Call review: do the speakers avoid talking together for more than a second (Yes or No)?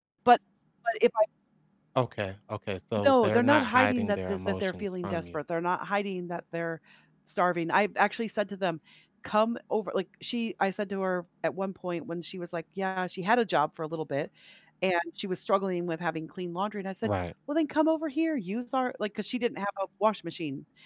No